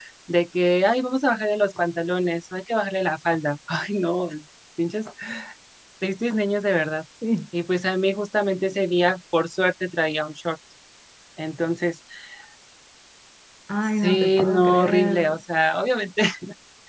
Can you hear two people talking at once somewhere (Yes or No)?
Yes